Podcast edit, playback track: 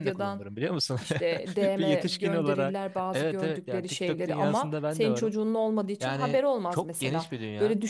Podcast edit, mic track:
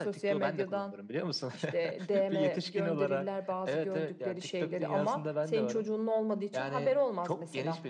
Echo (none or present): present